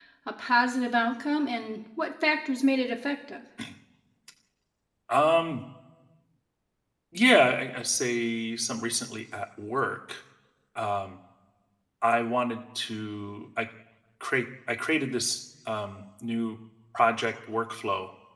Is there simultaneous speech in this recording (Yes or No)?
No